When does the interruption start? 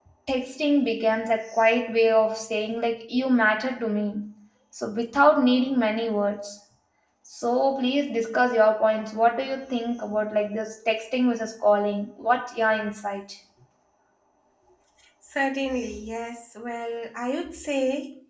none

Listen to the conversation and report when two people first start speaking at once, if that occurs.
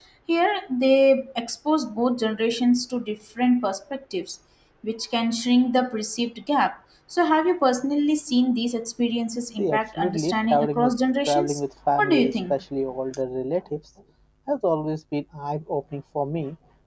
9.6 s

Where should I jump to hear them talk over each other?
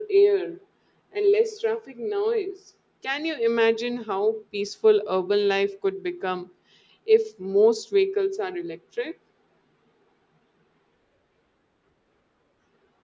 none

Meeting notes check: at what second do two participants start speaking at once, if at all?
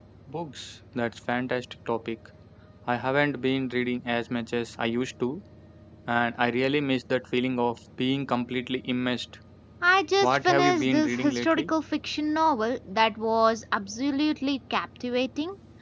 10.2 s

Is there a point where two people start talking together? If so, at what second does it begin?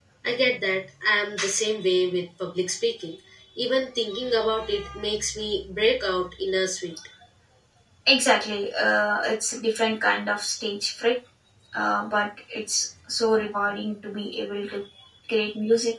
none

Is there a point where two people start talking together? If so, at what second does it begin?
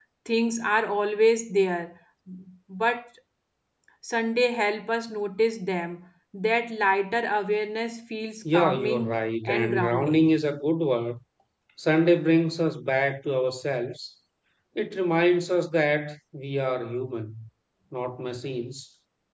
8.4 s

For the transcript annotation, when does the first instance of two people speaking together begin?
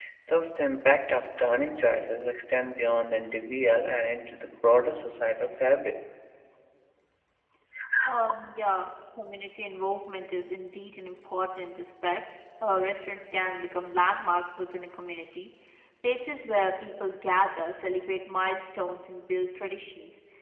none

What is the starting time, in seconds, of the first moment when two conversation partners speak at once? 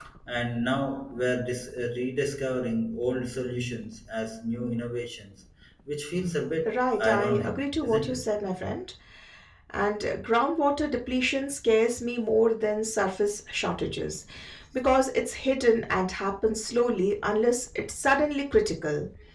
6.6 s

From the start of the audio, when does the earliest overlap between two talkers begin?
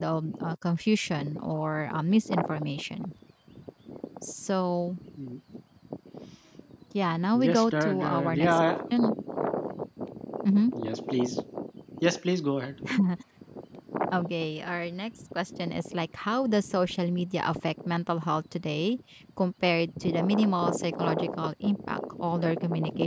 7.3 s

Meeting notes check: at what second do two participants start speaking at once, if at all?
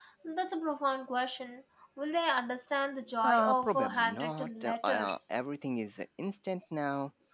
3.2 s

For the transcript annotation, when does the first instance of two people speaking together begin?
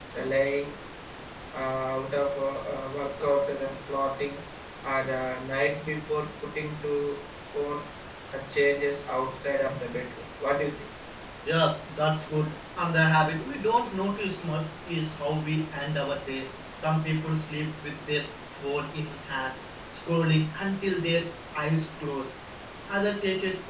none

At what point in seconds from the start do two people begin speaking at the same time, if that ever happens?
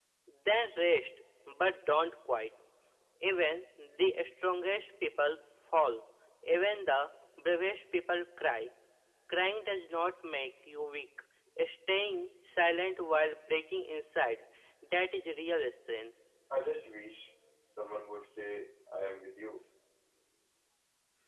none

